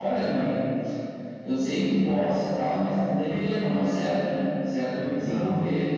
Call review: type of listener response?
listening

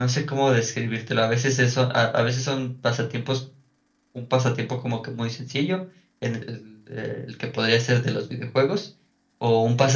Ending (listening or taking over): listening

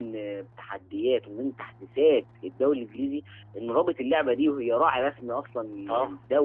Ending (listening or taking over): listening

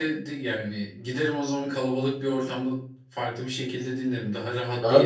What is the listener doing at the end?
taking over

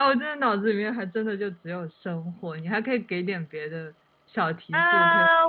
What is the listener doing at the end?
taking over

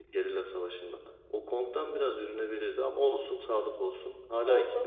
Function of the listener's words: taking over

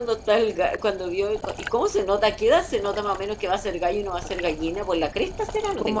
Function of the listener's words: taking over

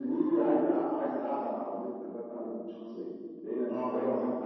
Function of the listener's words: listening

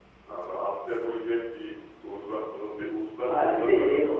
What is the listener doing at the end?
taking over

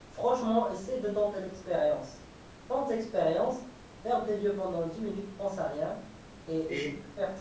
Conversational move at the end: listening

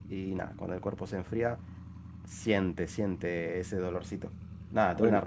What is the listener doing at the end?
listening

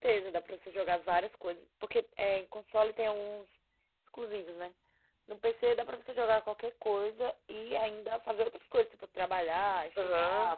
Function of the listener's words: taking over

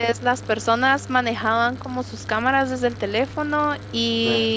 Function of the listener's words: listening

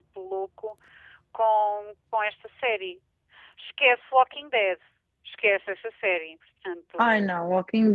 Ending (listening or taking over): taking over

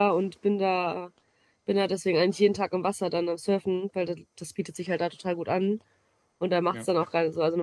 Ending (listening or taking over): listening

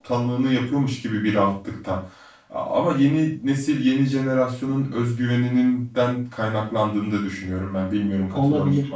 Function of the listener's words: taking over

